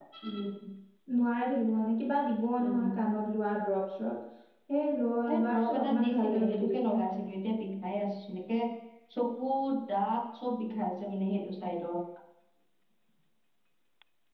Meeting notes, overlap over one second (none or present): present